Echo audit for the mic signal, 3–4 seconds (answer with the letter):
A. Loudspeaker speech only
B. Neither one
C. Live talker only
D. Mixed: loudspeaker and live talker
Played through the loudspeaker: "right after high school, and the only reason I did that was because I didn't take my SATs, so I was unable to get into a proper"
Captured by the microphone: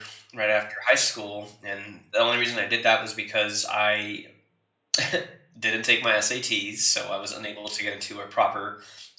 A